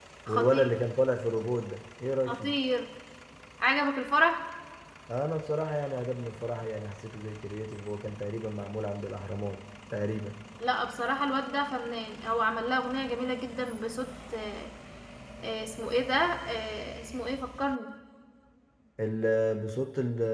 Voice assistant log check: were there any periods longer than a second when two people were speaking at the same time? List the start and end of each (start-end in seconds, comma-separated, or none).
none